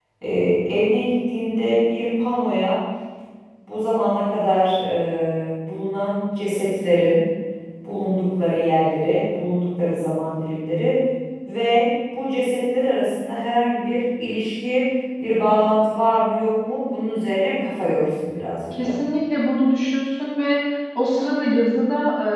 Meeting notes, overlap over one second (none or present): none